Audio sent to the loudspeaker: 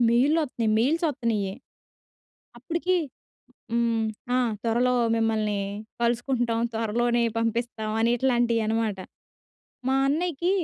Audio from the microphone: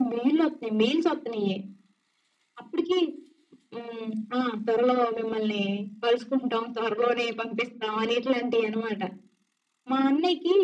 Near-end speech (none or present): none